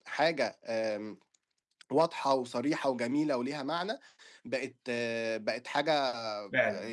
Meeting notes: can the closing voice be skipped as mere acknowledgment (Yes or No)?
Yes